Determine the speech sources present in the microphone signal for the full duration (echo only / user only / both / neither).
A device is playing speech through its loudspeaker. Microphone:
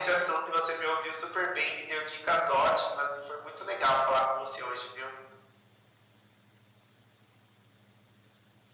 echo only